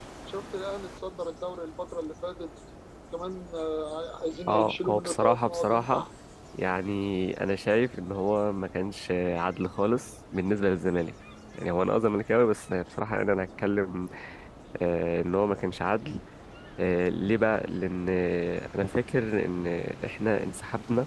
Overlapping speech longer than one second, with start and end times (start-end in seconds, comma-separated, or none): 4.5-6.0